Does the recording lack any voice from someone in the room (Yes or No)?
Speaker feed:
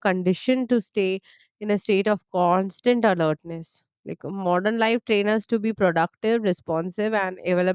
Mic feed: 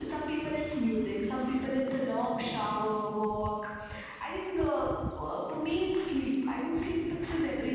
No